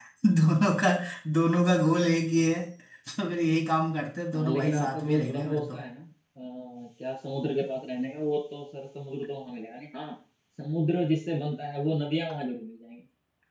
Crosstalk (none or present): present